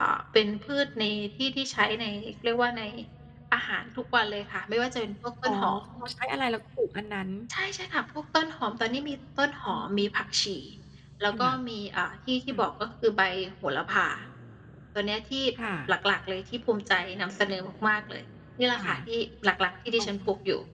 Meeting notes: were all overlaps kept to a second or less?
Yes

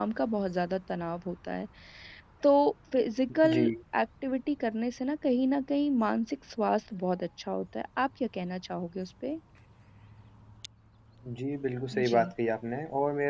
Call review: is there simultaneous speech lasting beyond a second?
No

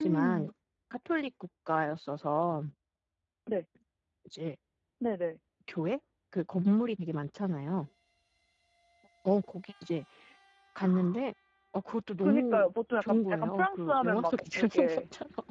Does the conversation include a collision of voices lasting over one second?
Yes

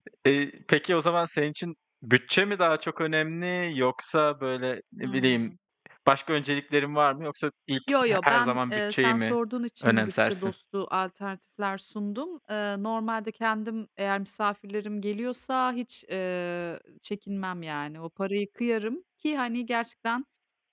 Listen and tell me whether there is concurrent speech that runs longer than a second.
Yes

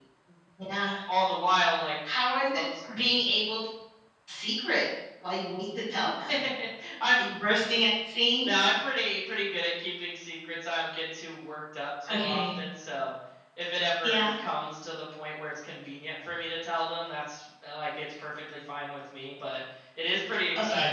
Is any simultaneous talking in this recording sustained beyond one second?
No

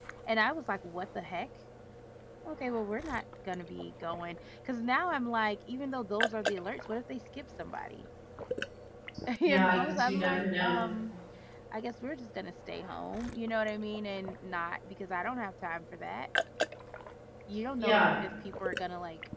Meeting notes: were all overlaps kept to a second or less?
No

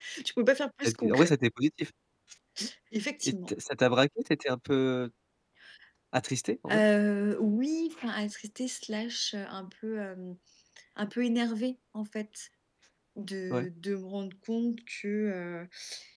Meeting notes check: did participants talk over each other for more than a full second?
No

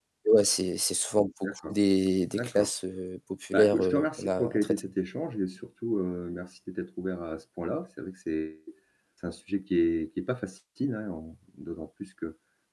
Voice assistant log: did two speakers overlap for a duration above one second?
Yes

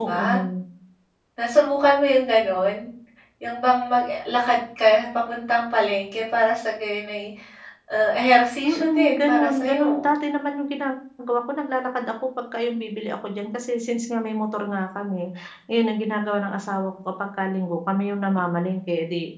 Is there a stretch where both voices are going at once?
Yes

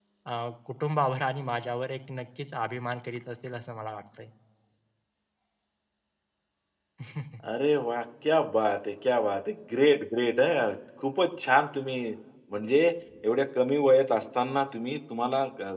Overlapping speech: No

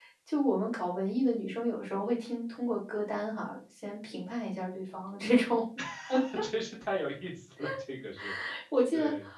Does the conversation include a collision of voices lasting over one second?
No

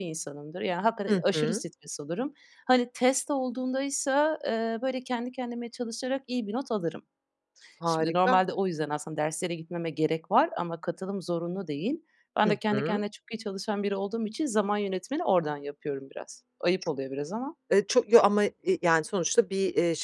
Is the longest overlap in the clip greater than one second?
No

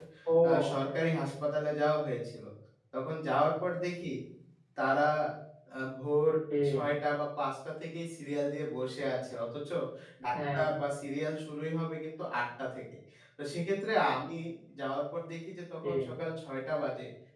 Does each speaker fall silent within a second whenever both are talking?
Yes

